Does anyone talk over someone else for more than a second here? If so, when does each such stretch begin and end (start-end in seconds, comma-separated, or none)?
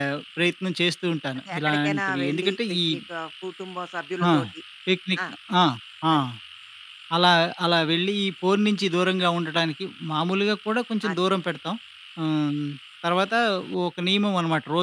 1.4-2.8